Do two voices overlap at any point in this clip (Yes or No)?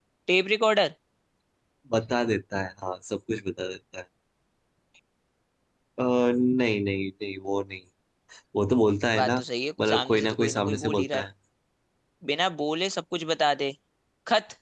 Yes